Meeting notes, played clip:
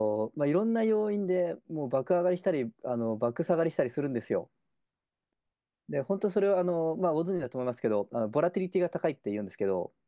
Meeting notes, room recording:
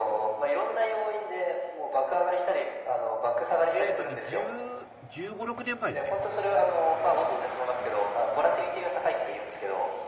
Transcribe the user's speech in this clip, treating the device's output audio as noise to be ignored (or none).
えっとね、10、15、6年前ですね。